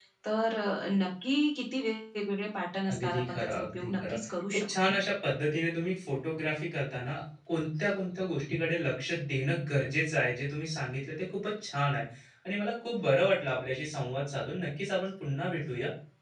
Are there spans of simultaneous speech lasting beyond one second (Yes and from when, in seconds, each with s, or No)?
Yes, from 2.8 s